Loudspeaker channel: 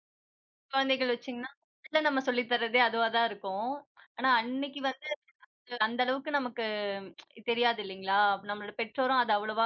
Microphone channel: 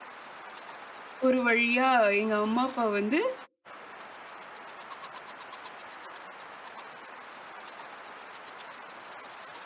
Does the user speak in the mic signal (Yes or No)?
Yes